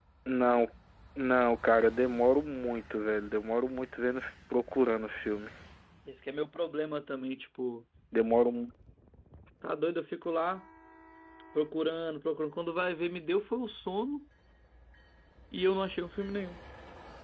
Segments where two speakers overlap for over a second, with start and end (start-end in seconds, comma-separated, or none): none